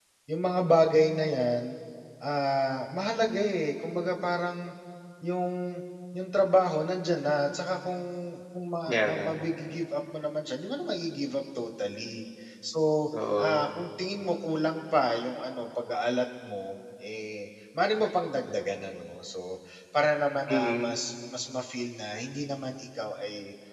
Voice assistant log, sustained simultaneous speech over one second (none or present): none